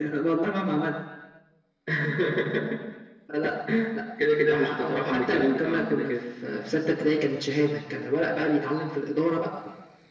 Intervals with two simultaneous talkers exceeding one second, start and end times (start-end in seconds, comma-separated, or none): 4.5-6.1